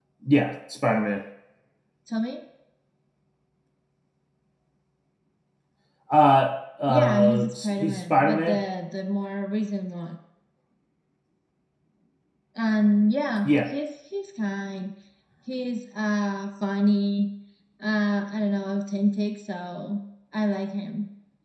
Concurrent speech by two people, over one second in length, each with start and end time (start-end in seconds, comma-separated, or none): 6.9-8.6